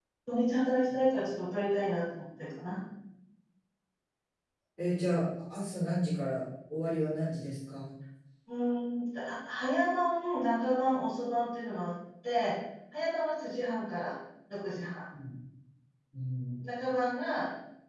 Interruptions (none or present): none